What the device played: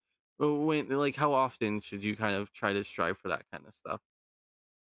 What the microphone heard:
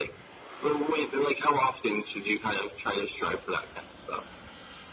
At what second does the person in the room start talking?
none

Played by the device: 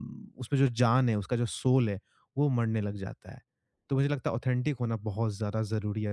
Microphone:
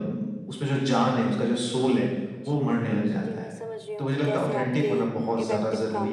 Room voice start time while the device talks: 2 s

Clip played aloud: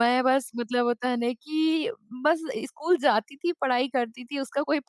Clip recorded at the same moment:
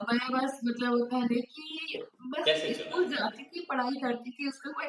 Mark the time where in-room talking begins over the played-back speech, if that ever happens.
2 s

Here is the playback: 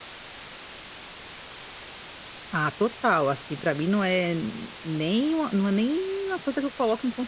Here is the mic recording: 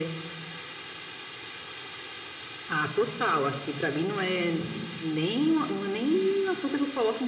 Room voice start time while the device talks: none

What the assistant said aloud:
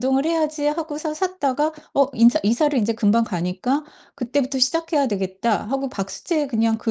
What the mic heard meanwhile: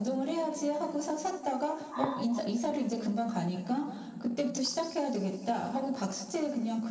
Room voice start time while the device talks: 2 s

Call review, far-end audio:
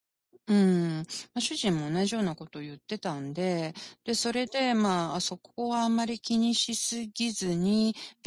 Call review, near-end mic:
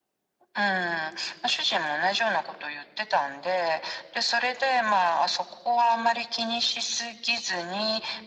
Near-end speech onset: none

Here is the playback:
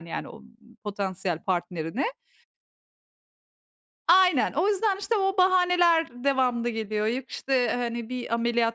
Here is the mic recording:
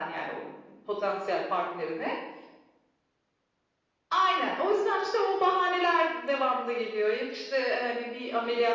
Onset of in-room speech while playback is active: none

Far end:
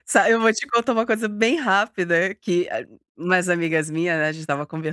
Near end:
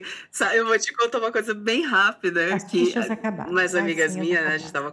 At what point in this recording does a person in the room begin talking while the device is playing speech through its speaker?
3 s

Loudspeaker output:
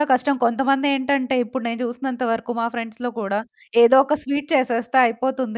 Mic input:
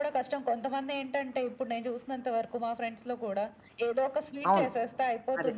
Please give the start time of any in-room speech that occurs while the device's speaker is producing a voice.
4 s

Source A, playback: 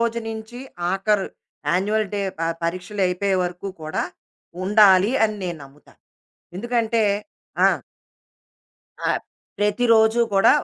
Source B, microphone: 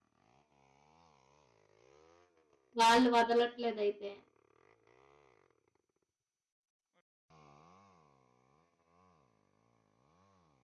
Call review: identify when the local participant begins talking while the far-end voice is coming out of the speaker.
3 s

